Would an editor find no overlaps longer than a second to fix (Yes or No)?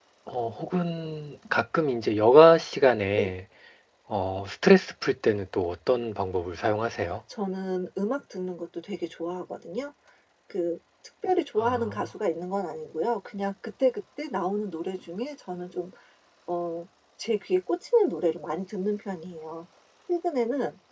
Yes